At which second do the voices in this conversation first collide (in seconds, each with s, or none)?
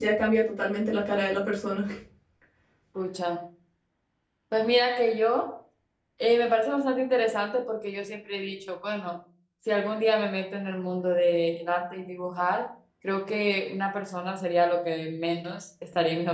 none